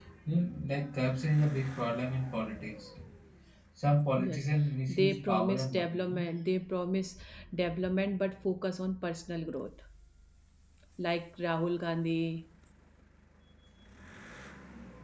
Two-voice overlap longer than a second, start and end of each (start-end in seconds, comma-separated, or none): 4.9-6.2